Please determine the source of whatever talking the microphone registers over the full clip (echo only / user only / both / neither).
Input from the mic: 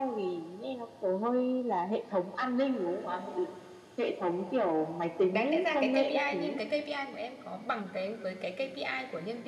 both